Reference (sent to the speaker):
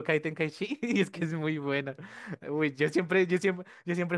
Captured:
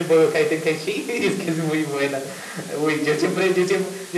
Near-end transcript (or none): none